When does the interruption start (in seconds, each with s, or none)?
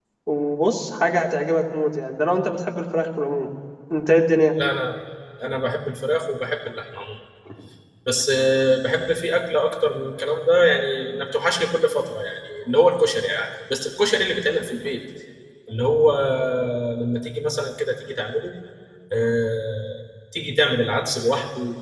none